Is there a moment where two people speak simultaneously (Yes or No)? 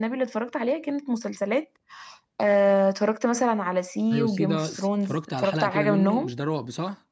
Yes